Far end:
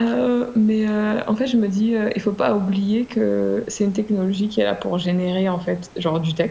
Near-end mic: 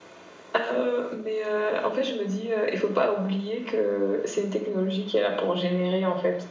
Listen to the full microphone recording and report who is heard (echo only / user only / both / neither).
echo only